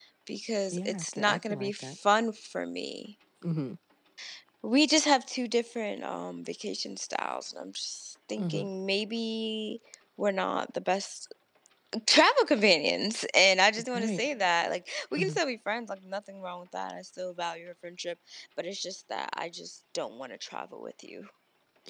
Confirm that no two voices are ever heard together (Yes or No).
No